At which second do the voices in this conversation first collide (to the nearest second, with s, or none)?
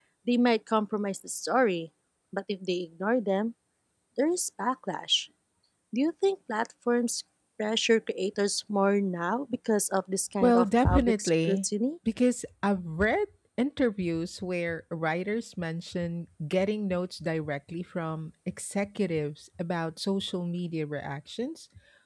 10 s